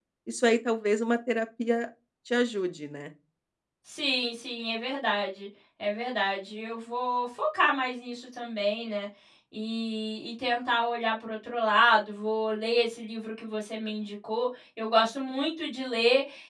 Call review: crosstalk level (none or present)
none